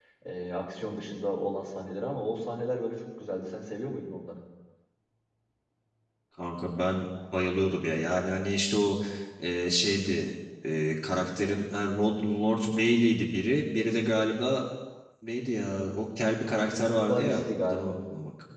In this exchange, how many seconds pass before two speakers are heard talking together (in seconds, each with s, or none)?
16.7 s